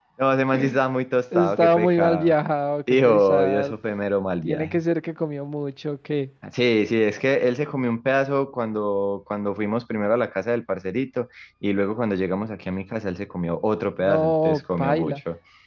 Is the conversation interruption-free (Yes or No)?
No